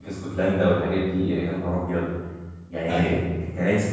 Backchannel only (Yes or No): Yes